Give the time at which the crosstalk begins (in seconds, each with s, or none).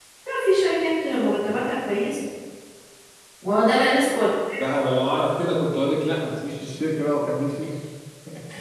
none